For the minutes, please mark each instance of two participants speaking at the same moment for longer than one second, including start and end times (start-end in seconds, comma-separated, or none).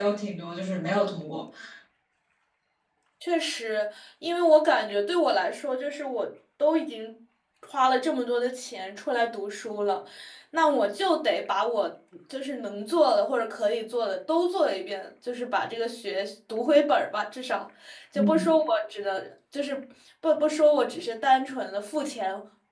none